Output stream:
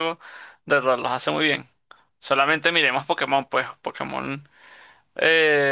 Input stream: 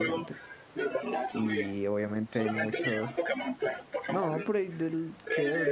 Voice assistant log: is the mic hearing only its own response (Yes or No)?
No